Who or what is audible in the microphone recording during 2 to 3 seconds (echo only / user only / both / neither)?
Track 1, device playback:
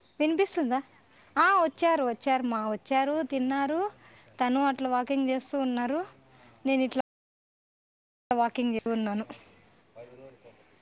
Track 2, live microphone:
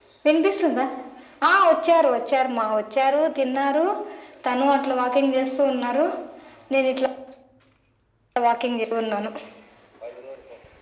echo only